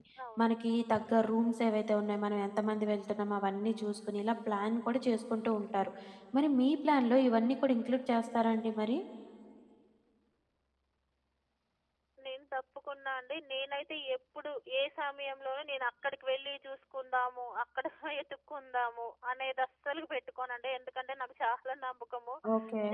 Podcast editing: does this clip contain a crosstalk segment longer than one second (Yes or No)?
No